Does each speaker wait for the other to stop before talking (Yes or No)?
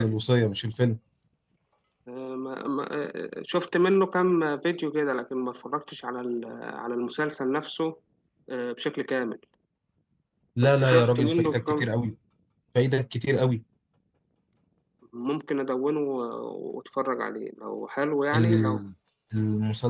No